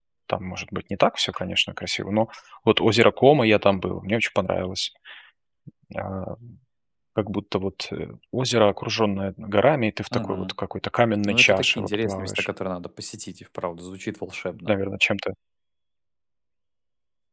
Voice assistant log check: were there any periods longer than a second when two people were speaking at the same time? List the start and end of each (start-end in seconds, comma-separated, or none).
11.3-12.5